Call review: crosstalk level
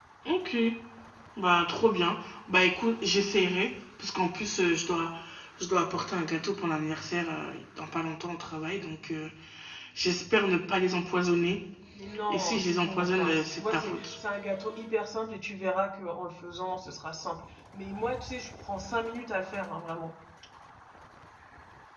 present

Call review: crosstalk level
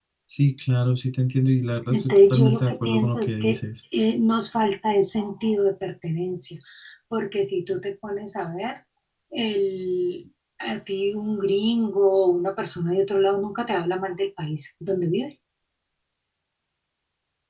present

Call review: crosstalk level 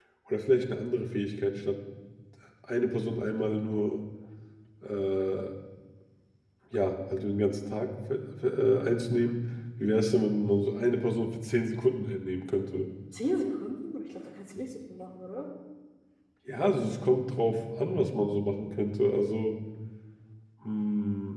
none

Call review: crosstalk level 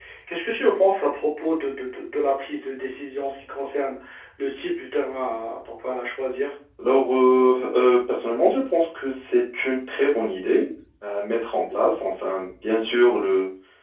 none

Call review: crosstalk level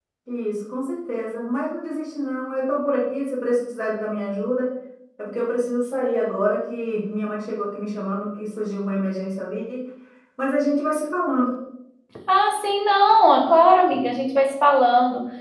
none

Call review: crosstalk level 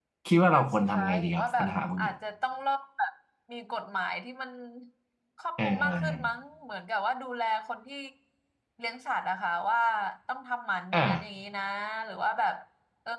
present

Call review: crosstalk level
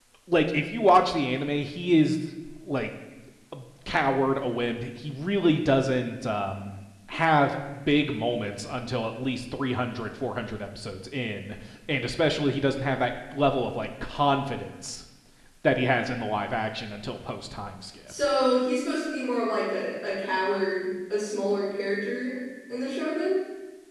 none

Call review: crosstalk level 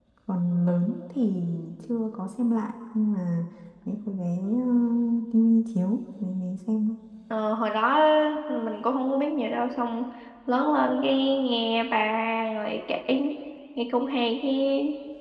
none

